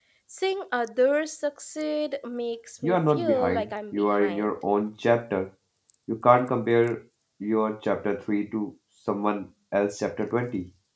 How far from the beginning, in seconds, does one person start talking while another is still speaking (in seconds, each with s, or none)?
2.8 s